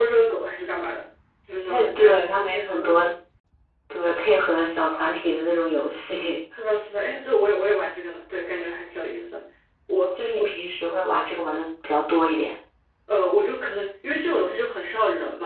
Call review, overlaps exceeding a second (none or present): present